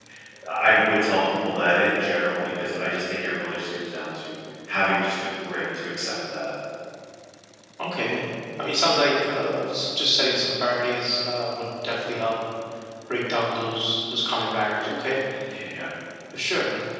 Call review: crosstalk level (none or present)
none